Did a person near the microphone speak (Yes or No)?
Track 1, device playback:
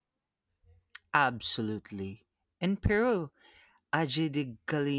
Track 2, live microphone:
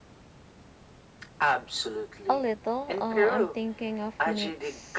Yes